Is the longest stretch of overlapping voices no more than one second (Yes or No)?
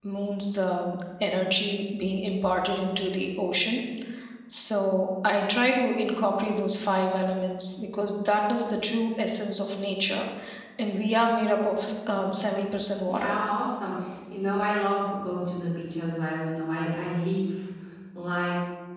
Yes